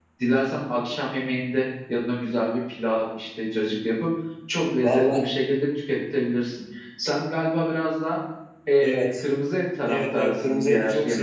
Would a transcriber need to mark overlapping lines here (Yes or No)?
Yes